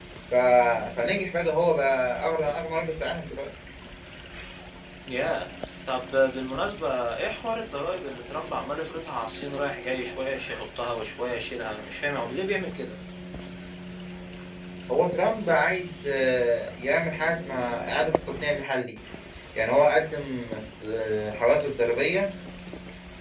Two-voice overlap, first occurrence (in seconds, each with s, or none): none